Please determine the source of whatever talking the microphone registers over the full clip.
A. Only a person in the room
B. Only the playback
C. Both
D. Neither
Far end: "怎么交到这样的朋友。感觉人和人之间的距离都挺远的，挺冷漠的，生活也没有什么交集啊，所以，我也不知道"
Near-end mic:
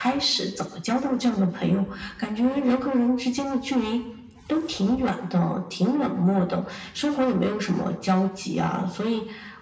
B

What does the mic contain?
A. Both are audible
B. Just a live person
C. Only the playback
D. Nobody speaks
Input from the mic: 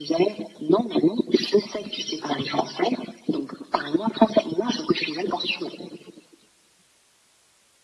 C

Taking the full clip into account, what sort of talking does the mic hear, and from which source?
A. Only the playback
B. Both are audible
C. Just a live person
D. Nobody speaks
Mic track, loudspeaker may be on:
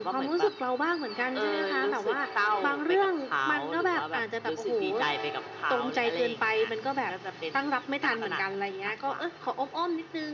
A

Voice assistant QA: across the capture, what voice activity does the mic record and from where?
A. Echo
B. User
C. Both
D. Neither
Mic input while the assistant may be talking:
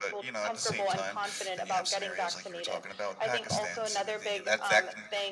C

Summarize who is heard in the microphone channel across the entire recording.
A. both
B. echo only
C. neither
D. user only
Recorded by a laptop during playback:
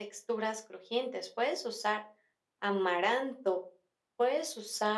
B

